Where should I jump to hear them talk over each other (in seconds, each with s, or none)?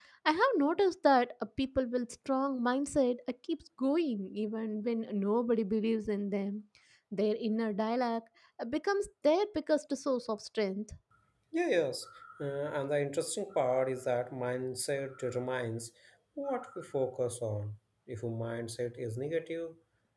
none